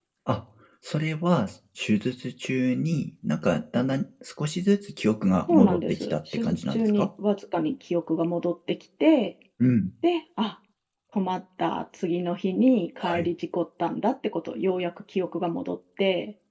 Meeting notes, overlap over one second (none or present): present